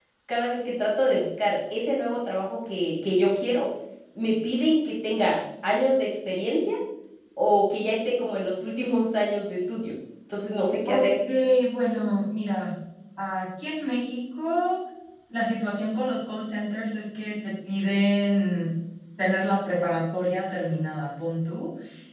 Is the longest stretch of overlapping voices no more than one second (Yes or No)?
Yes